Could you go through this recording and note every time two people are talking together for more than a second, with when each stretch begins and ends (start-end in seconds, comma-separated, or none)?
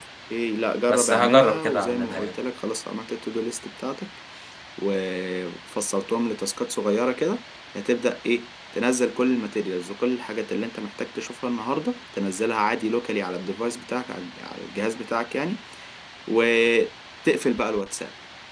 0.9-2.4